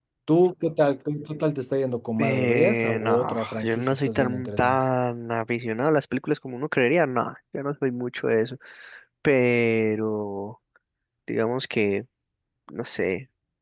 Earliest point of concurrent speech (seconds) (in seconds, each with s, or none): 2.2 s